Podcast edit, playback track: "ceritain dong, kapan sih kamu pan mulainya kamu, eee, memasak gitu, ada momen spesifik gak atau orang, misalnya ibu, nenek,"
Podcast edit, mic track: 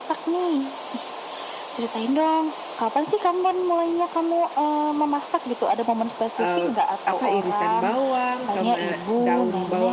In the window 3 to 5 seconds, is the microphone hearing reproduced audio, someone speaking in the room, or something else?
echo only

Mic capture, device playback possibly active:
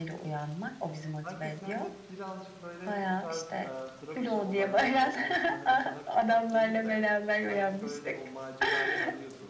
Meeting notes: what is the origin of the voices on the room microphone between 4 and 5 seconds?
both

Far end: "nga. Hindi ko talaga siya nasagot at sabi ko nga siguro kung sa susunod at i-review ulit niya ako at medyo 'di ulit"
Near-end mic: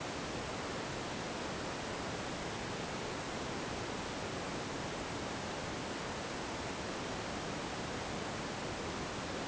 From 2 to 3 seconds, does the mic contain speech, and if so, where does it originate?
neither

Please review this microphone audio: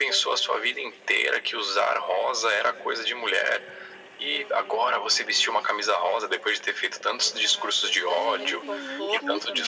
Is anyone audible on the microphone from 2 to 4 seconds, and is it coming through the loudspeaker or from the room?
echo only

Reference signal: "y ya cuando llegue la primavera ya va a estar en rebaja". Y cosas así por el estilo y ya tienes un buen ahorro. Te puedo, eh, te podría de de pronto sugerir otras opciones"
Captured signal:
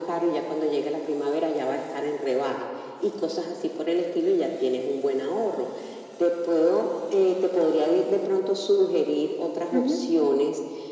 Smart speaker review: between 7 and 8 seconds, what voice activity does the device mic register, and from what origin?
echo only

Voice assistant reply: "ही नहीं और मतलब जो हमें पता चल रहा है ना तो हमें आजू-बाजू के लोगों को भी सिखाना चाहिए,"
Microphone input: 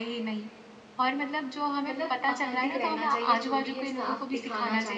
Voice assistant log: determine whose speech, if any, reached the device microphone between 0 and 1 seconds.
echo only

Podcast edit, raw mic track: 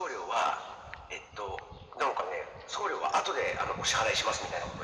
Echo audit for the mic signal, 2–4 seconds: echo only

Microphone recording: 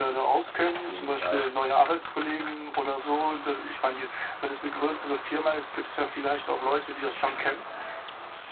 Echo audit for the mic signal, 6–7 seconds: echo only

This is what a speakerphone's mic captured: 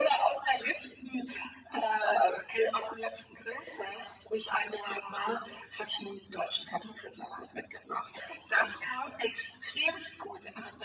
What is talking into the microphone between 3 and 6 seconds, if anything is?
echo only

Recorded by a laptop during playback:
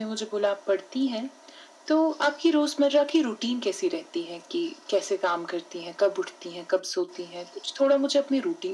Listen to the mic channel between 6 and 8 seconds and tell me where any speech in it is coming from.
echo only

